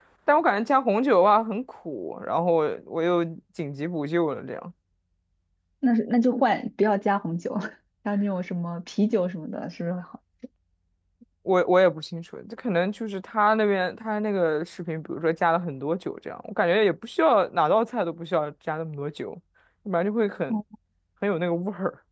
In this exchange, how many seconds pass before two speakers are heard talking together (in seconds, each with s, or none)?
none